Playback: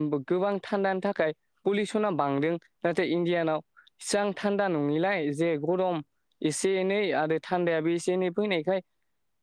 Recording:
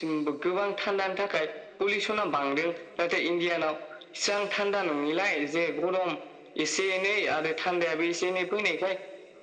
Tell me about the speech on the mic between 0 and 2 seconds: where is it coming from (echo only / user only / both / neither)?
echo only